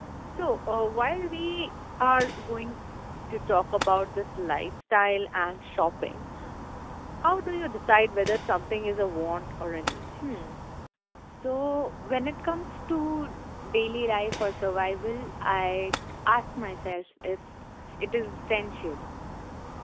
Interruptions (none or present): none